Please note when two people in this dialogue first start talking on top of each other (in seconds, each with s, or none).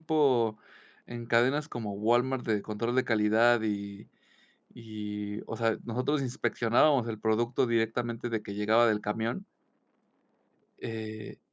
none